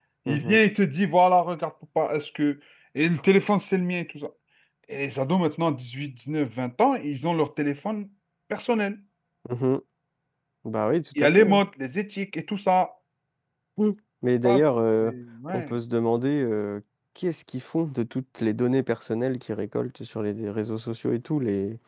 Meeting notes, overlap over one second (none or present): none